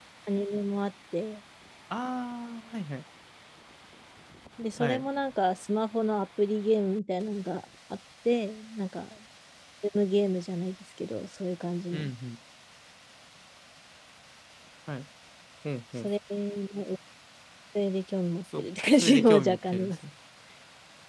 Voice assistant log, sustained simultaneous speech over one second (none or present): present